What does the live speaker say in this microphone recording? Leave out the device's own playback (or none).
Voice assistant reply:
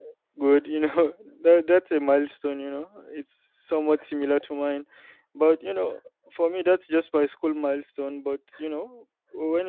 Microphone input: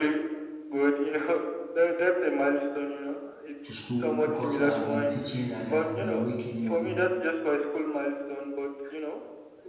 to school because I've been teaching and I've been making money.